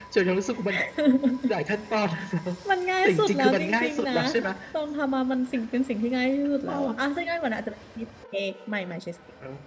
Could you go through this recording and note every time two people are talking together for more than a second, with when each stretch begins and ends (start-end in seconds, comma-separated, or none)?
3.0-4.5